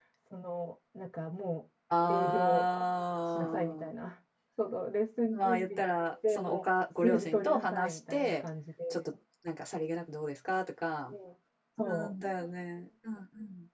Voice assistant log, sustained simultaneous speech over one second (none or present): present